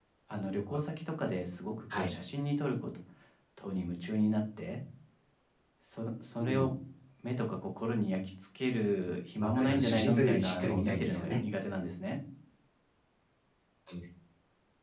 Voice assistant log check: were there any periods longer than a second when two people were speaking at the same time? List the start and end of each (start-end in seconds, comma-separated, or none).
9.3-11.4